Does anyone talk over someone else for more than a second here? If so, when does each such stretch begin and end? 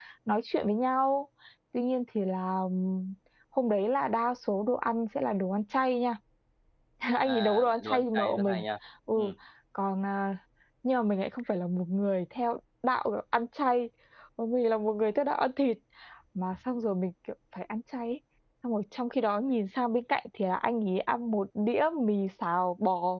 7.2-8.6

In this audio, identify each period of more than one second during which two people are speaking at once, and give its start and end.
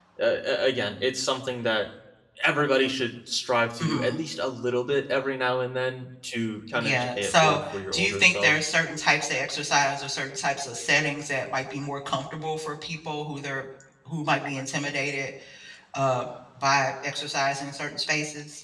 6.8-8.5

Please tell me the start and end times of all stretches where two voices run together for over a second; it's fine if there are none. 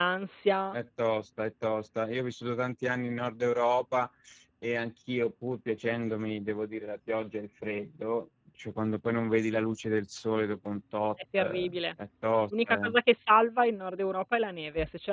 none

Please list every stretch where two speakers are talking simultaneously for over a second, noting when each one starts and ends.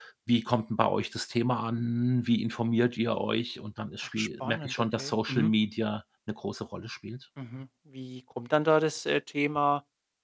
4.2-5.5

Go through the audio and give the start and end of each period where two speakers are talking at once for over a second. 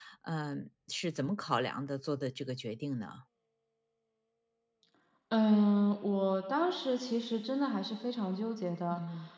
none

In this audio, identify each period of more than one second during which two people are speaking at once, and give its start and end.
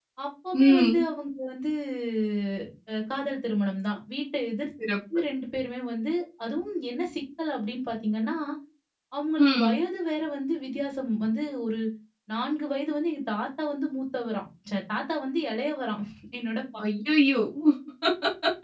none

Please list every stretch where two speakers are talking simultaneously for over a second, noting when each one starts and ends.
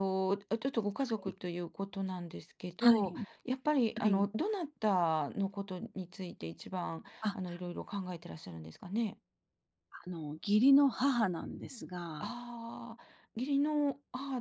none

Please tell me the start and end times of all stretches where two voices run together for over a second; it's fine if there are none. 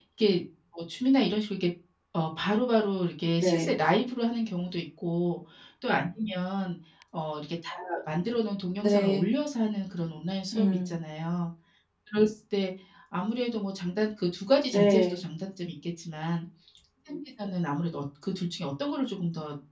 none

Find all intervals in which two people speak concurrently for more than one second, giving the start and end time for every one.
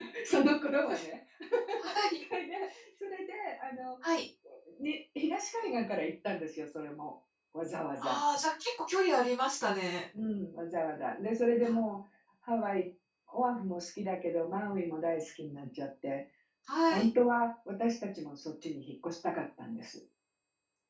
none

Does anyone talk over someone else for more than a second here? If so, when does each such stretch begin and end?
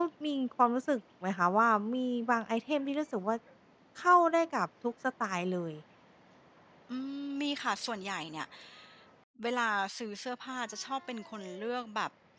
none

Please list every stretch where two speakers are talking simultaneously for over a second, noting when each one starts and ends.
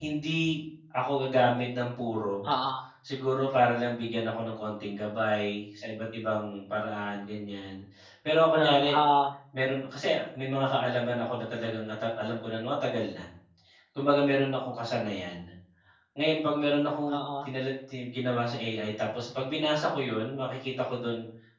none

